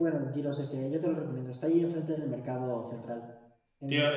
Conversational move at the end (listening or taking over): taking over